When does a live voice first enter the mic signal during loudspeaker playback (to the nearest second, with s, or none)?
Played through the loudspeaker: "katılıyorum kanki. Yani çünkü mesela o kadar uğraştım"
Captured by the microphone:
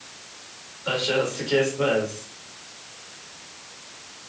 1 s